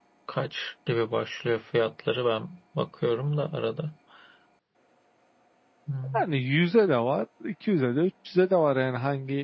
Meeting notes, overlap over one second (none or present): none